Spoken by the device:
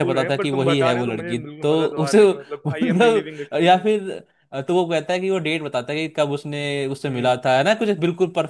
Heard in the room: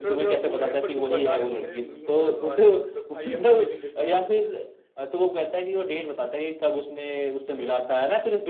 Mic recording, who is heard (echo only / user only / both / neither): echo only